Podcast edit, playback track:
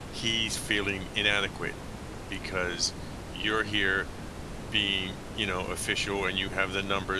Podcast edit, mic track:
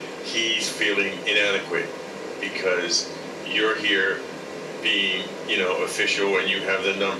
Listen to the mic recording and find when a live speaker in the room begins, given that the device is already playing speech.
none

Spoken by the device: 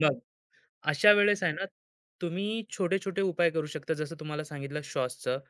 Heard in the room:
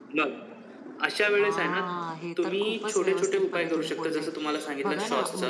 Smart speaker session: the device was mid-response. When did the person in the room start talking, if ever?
1 s

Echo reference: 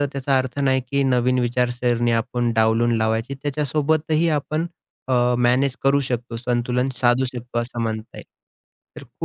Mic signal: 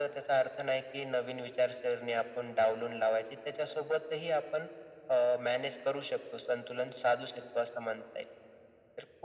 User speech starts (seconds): none

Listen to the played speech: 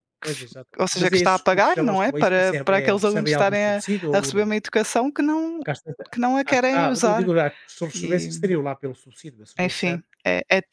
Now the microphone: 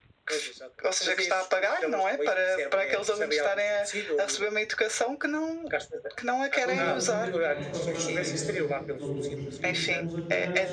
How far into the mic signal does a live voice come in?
7 s

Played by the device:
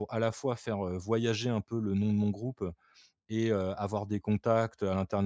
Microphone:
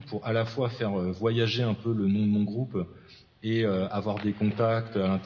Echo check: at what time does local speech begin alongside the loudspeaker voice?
none

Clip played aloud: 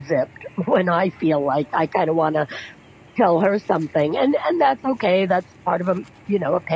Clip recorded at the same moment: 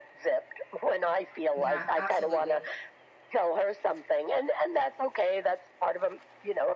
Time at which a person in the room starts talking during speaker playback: 2 s

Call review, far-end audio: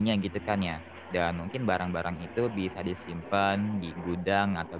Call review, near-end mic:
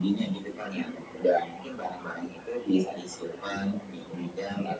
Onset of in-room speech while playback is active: none

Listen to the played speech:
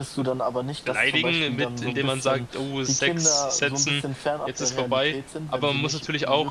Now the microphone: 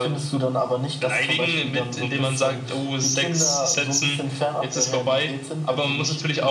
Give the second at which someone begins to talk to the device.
none

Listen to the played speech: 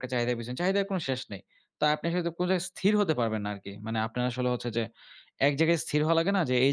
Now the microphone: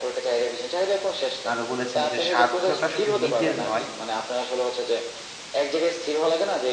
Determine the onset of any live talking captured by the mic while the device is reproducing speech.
2 s

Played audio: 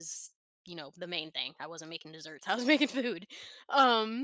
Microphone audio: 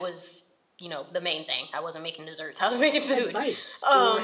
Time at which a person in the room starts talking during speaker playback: 3 s

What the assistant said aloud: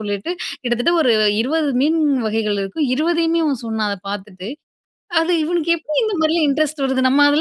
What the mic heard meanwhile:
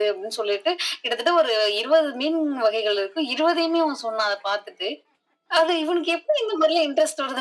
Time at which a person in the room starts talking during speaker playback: none

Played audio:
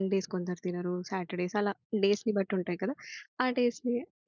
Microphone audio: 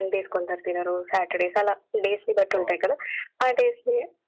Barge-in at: 3 s

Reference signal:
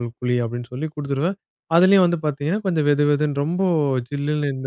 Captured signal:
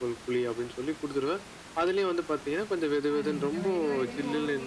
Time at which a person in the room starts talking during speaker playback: 3 s

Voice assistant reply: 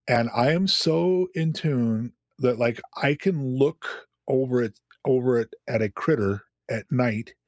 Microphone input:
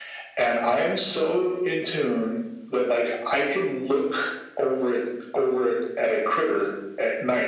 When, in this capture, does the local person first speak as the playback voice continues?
none

